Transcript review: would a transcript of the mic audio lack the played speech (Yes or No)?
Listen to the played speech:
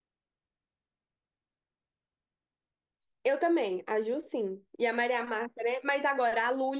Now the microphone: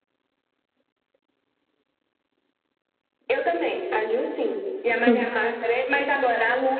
No